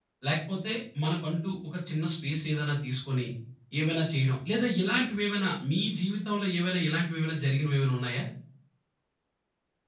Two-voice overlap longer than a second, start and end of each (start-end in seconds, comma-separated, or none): none